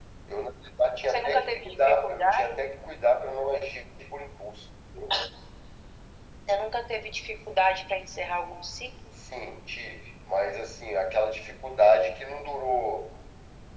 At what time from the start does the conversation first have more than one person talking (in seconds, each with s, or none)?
1.1 s